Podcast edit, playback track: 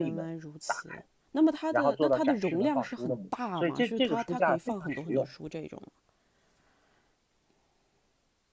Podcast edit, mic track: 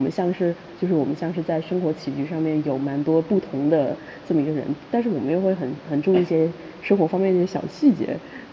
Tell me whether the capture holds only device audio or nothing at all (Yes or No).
No